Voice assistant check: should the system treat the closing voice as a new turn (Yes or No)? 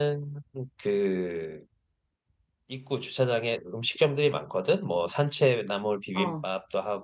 No